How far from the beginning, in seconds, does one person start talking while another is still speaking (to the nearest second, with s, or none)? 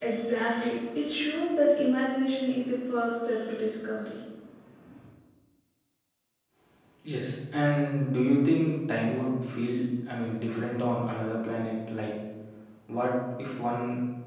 none